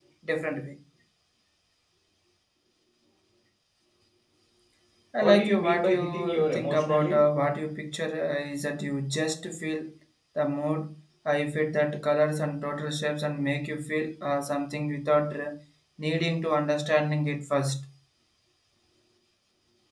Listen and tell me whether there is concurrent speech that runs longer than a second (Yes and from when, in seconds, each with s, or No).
Yes, from 5.2 s